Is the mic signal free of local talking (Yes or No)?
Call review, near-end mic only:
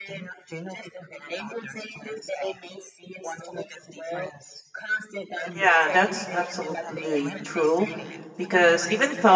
No